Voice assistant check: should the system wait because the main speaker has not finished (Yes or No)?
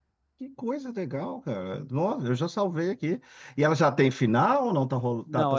No